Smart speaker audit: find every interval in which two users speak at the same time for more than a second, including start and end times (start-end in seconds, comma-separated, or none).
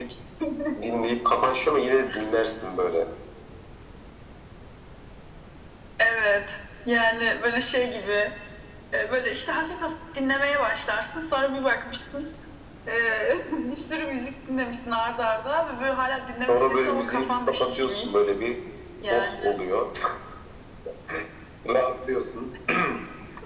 16.5-18.1